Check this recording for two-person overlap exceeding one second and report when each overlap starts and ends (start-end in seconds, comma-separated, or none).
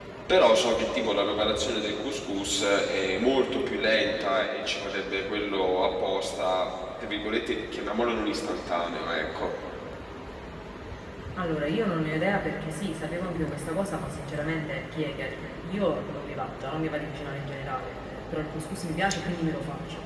none